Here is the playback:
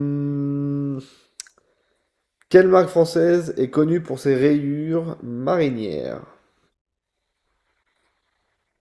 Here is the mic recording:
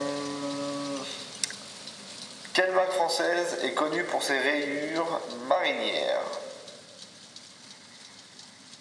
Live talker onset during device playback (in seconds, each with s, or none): none